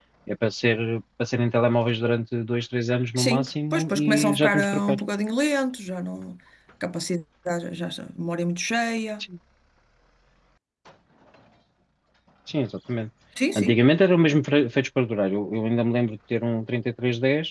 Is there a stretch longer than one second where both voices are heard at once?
Yes, from 3.2 s

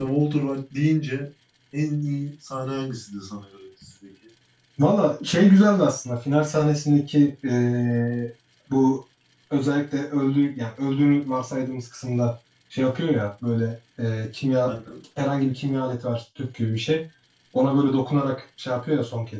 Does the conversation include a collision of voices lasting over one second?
No

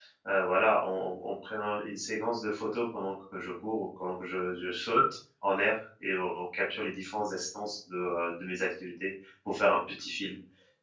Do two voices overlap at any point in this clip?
No

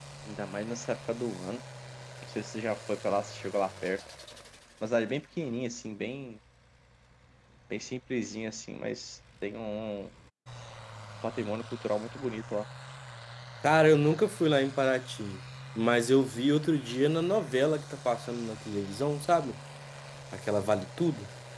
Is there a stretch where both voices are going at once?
No

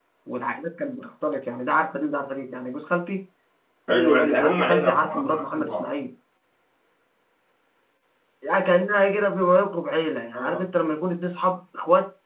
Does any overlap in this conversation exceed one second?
Yes, from 3.9 s

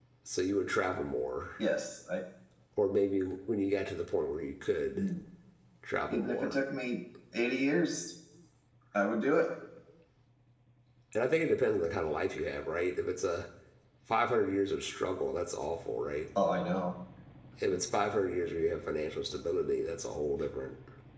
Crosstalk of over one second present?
No

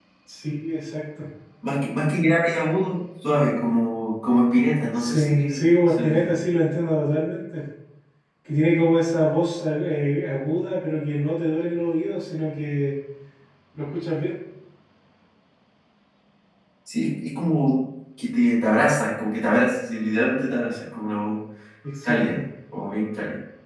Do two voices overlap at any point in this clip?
Yes, from 5.0 s

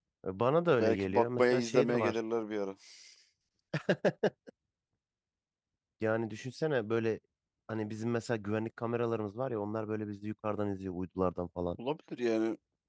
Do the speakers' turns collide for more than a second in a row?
Yes, from 0.8 s

